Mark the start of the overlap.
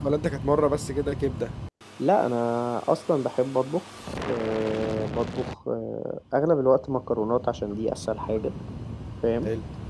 none

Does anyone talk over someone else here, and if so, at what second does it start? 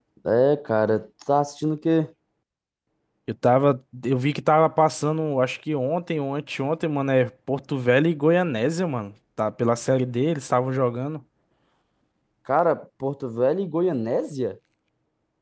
none

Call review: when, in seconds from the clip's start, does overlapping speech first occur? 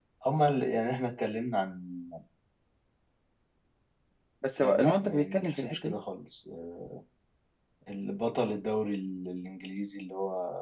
4.6 s

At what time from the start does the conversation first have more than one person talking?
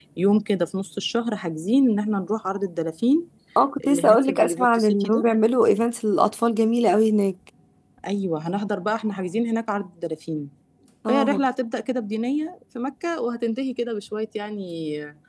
3.8 s

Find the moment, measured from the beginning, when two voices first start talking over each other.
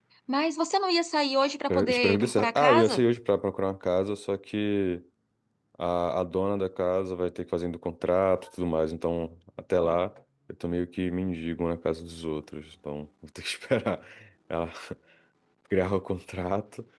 1.7 s

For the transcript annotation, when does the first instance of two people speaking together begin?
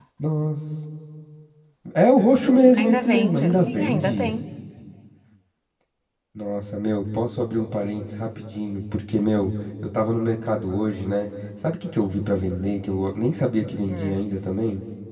2.8 s

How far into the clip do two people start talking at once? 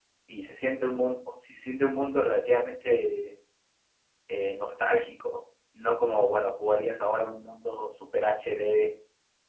none

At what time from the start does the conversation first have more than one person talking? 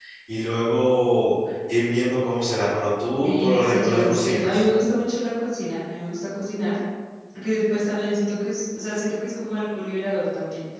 3.2 s

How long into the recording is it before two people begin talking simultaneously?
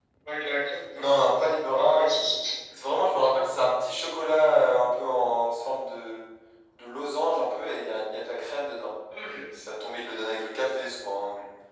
0.9 s

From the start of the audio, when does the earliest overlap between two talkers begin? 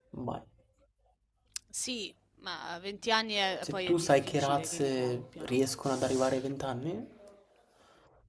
3.6 s

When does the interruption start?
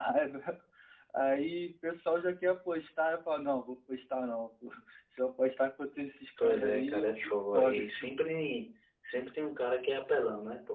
6.4 s

